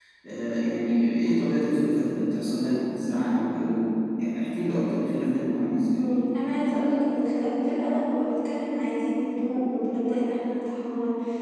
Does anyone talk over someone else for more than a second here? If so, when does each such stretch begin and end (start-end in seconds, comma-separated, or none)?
none